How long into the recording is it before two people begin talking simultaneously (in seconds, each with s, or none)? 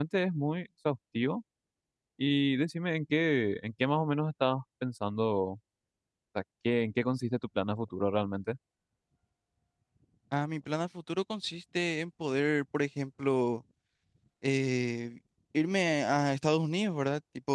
none